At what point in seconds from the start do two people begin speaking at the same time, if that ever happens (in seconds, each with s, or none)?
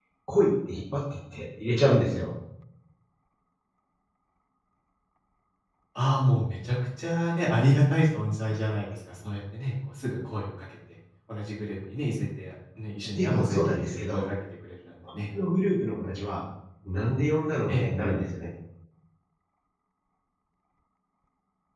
13.0 s